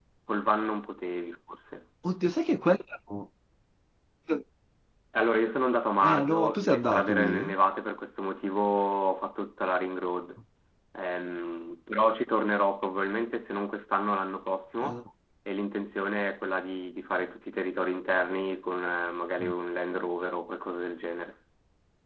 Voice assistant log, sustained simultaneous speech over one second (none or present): present